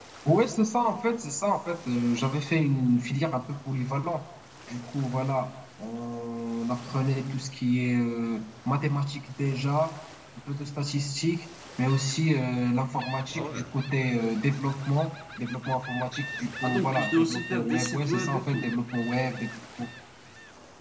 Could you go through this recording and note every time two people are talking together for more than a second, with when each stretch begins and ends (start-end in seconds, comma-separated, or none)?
16.6-18.8